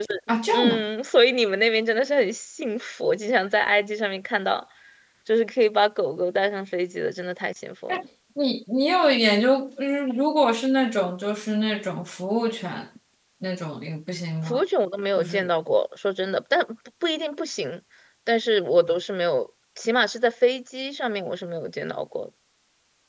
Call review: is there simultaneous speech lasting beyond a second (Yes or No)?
No